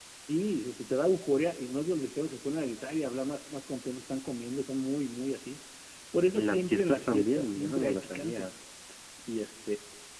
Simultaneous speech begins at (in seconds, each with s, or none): 6.3 s